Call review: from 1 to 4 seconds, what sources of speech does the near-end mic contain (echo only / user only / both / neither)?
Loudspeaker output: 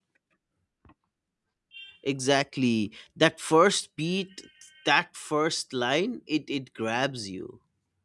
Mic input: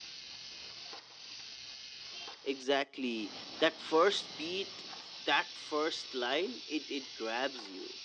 echo only